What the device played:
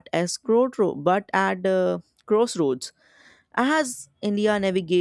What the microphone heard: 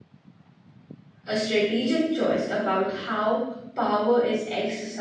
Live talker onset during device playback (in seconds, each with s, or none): 1.3 s